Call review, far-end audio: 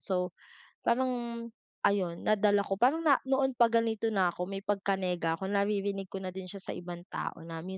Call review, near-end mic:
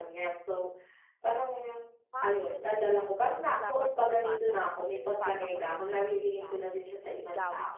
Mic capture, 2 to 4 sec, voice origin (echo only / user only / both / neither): both